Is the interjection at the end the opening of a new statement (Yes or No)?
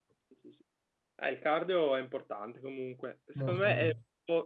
No